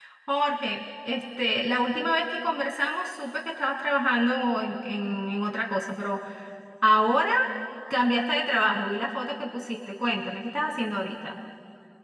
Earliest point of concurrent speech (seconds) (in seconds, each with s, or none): none